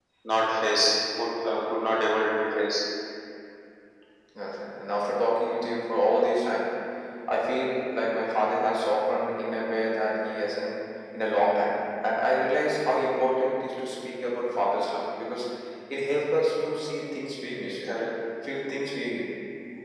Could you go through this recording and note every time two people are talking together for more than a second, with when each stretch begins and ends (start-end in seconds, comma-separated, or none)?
none